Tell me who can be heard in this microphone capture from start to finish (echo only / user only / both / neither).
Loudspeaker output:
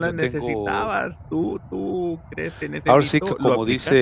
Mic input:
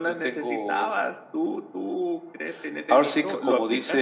echo only